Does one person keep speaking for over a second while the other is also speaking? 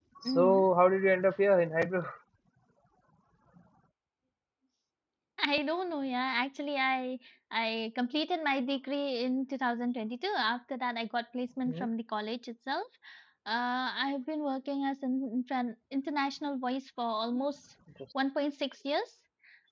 No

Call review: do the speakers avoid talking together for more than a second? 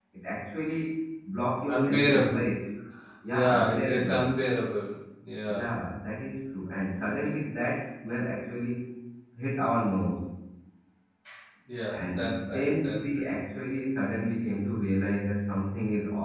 No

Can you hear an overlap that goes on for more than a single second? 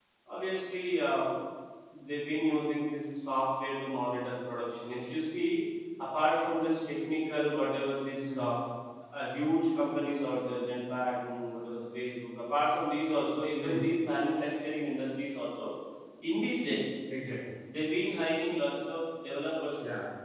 No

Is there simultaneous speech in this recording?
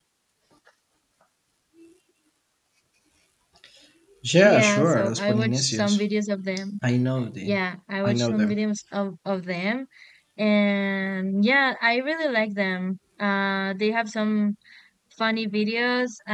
Yes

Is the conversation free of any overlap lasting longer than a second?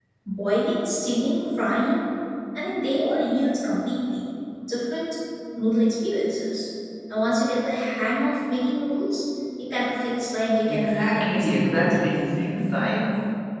No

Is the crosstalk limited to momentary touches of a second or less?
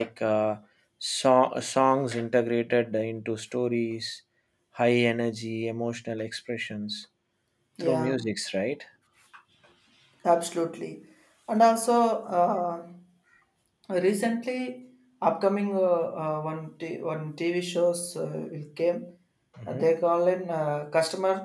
Yes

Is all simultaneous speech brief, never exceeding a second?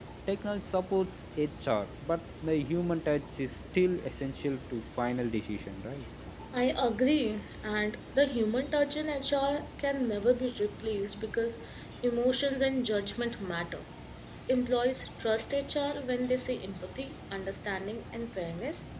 Yes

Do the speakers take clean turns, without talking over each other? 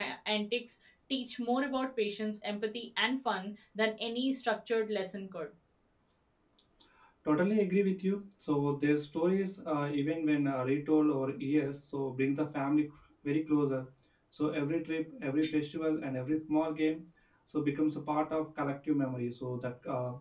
Yes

